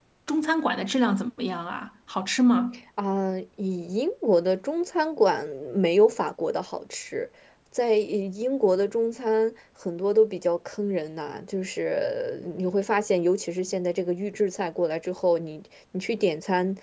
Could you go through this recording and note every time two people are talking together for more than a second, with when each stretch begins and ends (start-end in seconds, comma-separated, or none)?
none